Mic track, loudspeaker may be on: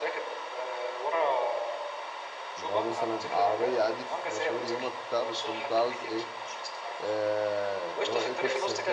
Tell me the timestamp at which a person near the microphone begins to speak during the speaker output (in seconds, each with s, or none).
2.6 s